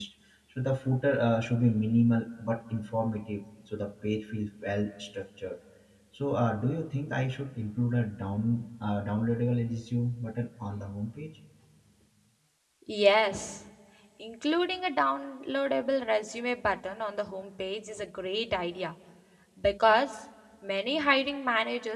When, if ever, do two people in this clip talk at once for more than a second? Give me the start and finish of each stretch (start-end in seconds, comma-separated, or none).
none